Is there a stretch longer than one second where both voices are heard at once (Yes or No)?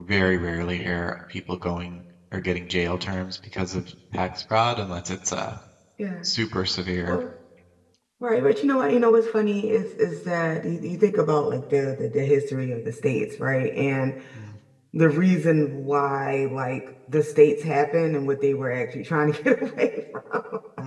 No